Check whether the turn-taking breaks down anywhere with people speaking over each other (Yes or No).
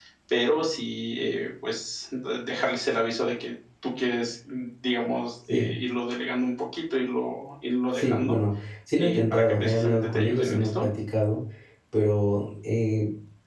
Yes